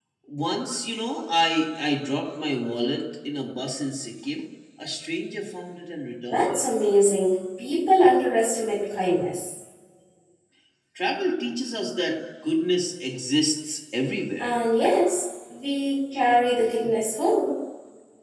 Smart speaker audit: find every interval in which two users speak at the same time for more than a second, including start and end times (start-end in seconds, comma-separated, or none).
none